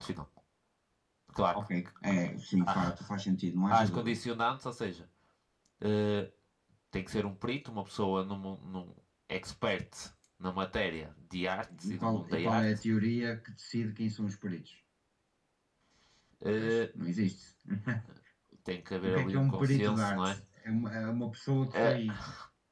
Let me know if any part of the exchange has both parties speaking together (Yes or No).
Yes